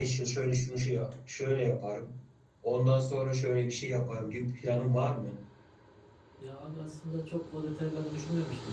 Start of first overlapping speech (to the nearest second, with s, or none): none